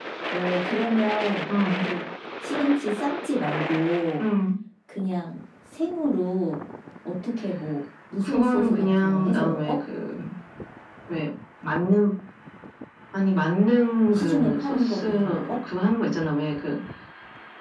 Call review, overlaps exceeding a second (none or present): present